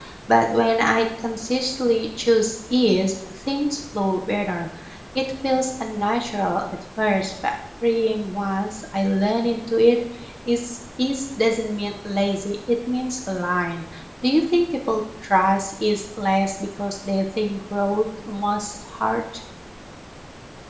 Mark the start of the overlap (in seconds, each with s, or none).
none